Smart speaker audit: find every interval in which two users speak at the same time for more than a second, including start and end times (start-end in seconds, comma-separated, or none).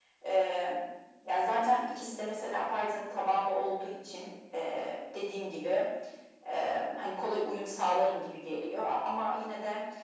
none